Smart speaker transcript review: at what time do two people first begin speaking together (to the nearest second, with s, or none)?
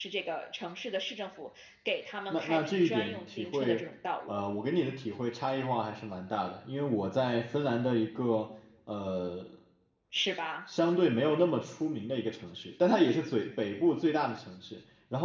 2 s